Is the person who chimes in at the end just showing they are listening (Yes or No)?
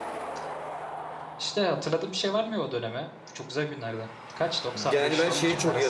No